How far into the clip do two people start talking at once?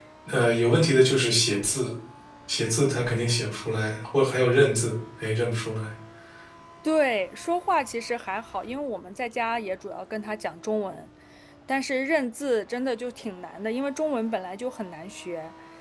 none

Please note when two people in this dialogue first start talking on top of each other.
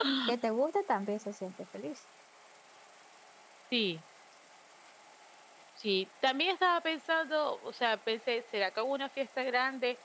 none

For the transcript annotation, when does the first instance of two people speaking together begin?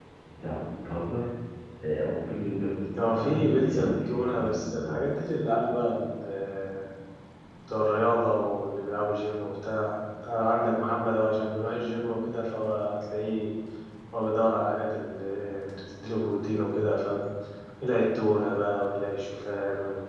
2.9 s

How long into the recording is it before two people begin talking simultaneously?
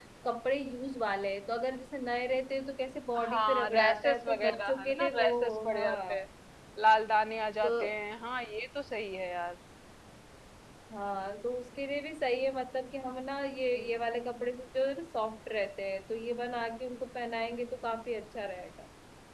3.2 s

